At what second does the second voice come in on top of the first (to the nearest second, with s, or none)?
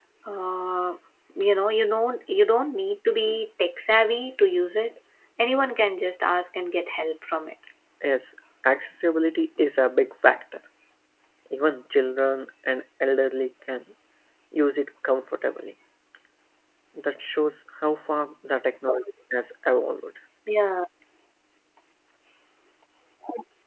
none